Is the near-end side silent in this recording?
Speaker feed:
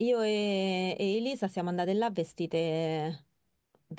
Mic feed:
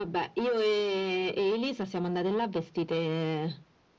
Yes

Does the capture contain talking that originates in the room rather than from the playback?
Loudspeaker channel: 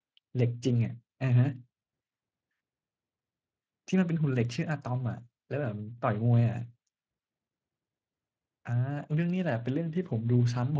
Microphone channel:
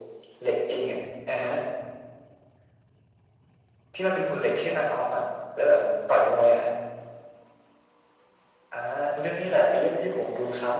No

